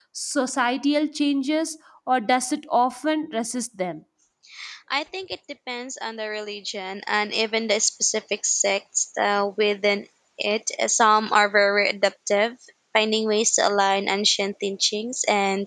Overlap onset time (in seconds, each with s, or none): none